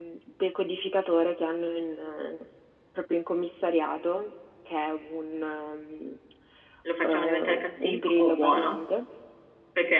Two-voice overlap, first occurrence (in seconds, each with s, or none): 7.0 s